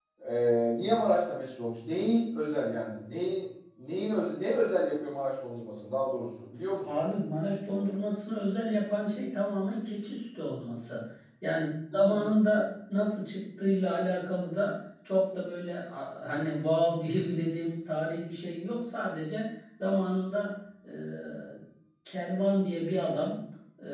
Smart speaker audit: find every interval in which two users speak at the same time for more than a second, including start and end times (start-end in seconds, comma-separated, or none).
none